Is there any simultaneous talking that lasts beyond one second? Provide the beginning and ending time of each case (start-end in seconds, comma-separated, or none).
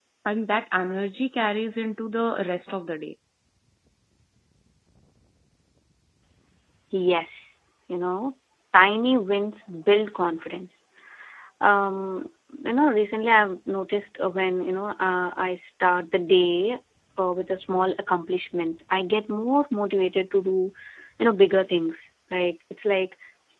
none